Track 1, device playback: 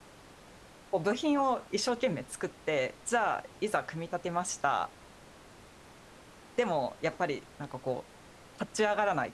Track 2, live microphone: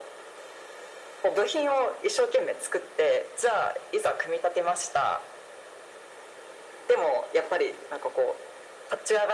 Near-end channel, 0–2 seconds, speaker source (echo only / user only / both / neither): echo only